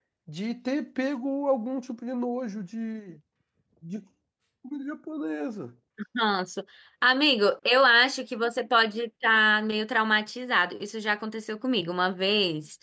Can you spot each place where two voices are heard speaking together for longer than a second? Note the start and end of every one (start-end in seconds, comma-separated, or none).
none